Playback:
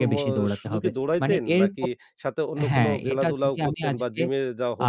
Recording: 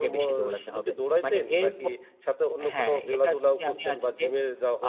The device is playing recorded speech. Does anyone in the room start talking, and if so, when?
none

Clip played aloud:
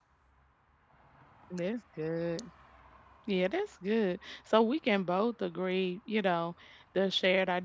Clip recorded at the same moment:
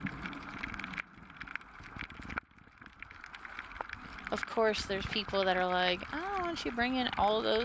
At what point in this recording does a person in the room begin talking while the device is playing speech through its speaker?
4.3 s

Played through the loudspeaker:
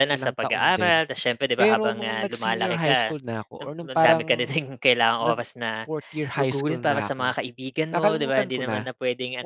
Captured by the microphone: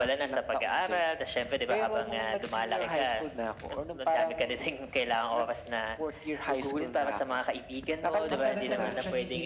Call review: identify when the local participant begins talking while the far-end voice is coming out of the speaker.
8.3 s

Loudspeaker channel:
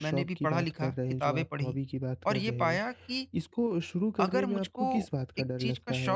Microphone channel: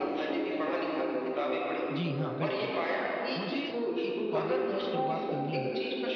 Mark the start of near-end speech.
1.9 s

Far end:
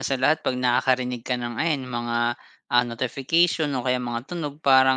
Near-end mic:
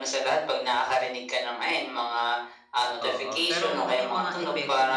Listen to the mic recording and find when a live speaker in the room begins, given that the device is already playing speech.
3.0 s

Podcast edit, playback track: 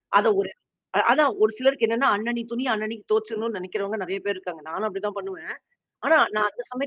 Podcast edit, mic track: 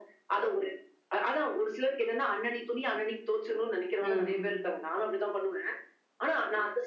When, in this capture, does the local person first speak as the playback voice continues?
4.0 s

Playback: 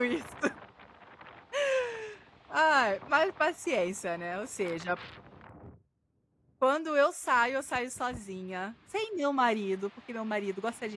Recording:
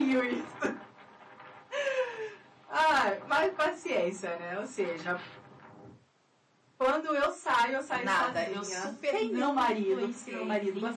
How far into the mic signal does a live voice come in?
7.9 s

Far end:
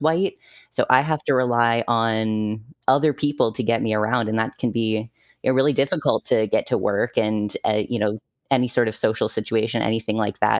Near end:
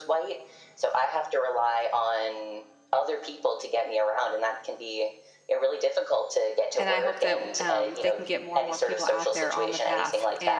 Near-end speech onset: 6.8 s

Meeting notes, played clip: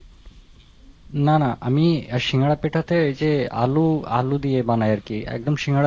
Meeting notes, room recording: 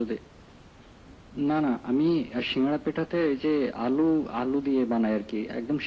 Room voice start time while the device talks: none

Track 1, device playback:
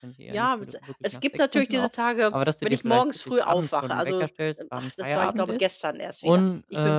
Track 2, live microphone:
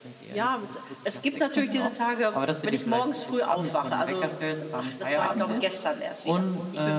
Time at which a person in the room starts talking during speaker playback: none

